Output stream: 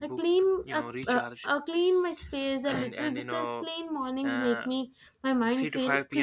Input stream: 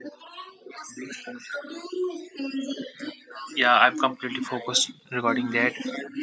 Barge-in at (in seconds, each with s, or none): 3.5 s